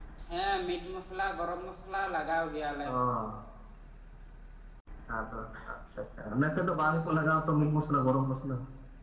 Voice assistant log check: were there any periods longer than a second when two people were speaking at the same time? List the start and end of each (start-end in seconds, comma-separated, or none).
none